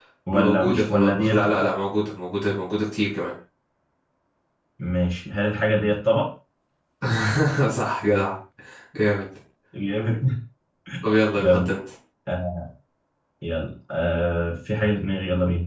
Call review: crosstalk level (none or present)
present